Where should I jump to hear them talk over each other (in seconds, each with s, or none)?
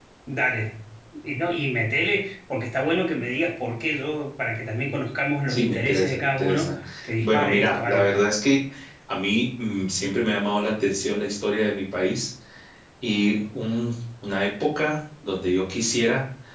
5.5 s